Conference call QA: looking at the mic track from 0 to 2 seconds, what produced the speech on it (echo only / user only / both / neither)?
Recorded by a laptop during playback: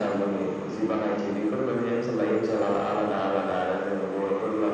echo only